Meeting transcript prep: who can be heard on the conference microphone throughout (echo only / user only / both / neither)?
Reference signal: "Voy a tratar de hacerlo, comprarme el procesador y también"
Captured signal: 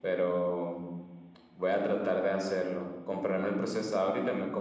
echo only